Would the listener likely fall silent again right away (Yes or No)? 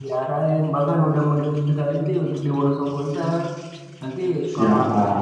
Yes